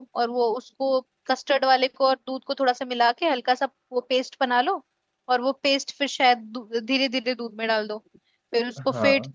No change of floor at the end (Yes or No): Yes